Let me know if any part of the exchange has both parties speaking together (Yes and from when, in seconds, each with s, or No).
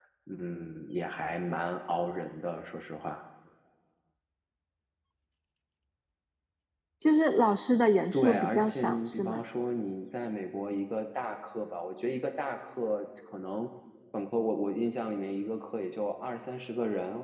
Yes, from 8.1 s